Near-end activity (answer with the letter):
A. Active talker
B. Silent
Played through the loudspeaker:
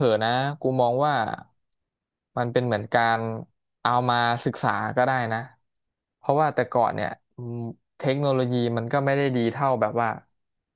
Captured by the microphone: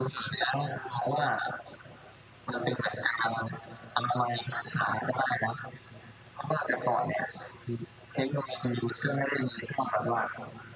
B